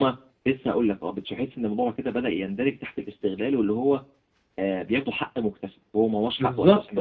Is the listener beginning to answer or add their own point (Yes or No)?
Yes